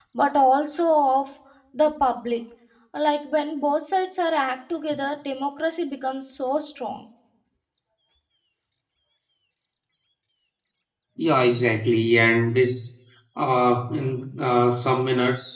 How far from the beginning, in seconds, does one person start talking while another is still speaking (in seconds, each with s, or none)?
none